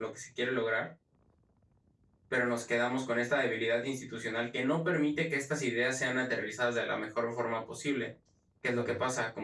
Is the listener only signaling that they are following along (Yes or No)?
Yes